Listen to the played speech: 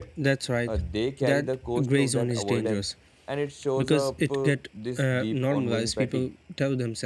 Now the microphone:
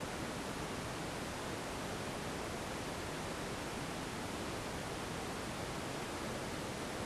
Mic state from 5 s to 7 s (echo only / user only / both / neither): neither